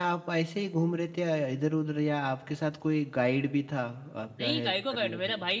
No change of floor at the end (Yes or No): No